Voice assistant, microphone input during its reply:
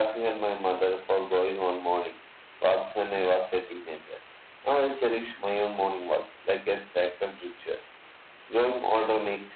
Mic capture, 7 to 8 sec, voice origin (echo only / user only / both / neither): echo only